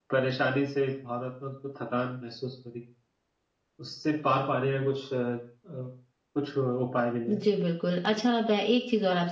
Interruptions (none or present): none